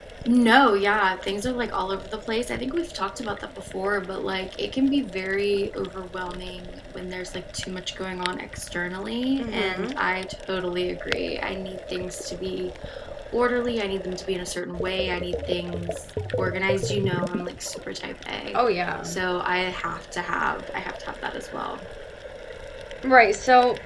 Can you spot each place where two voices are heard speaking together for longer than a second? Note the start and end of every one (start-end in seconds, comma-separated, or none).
none